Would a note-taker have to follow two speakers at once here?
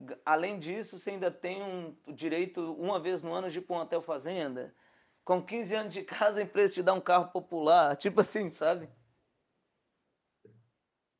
No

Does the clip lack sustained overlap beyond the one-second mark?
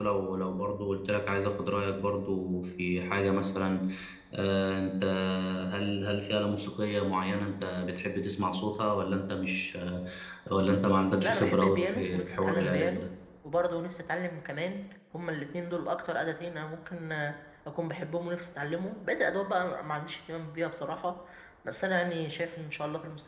No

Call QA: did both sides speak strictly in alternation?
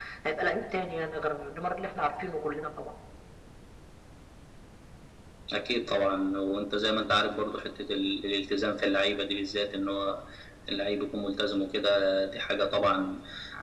Yes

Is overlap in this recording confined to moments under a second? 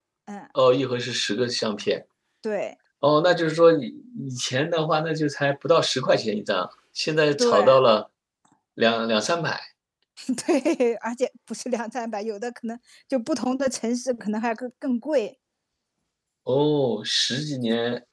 Yes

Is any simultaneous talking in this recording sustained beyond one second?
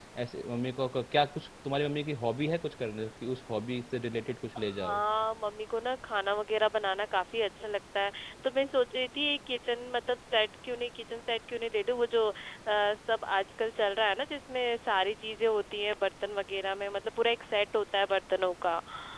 No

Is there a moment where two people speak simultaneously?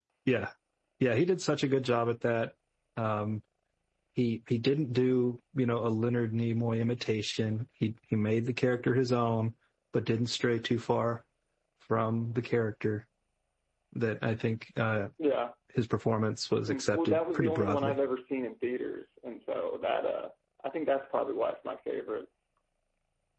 Yes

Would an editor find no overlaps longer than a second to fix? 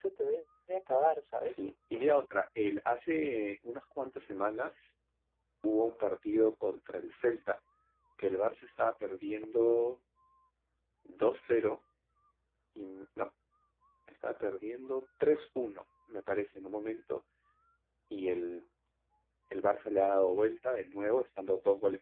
Yes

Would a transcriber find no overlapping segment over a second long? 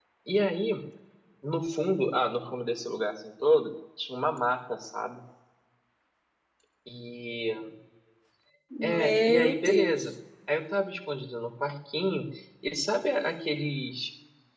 No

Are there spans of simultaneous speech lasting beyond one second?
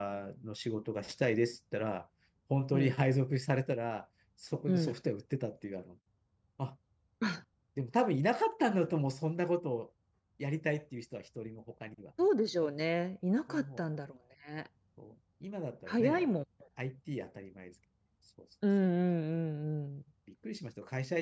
No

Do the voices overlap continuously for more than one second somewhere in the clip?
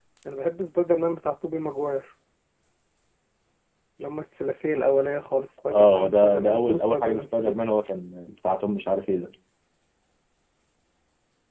Yes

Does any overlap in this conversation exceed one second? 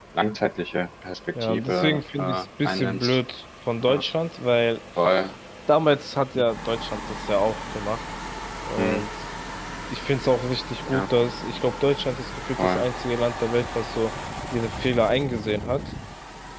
Yes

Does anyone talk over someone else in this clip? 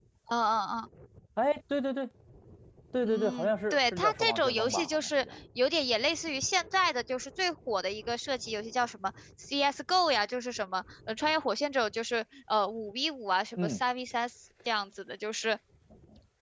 Yes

